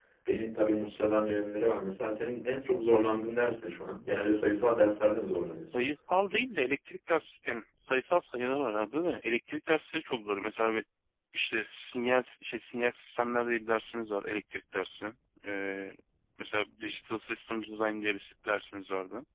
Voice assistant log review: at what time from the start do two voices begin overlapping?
none

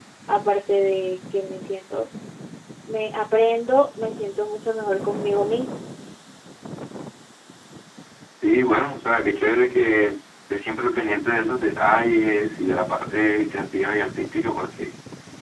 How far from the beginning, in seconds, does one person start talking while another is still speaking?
none

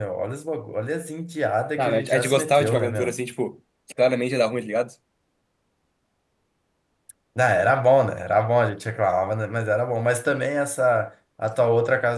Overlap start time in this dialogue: 2 s

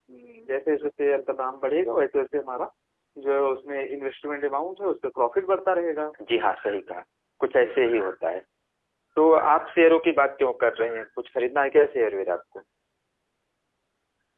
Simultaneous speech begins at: none

